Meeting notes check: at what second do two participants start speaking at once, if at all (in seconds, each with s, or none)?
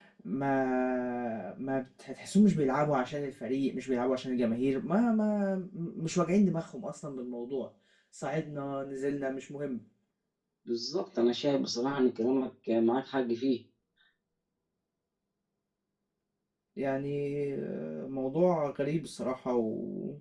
none